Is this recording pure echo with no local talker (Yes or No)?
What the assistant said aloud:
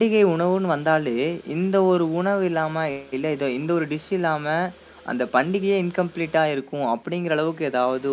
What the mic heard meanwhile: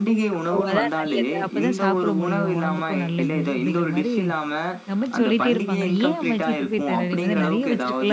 No